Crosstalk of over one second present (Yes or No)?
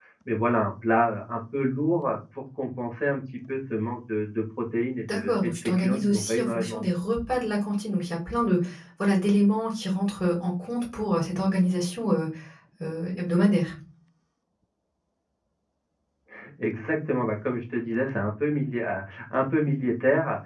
Yes